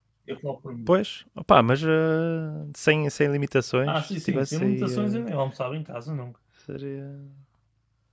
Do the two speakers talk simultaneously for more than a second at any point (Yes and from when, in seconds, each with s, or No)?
Yes, from 3.8 s